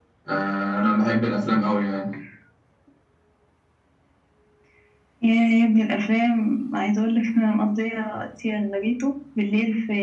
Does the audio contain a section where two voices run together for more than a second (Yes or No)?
No